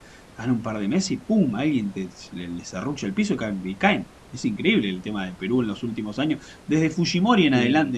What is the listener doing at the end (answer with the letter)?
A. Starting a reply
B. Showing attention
B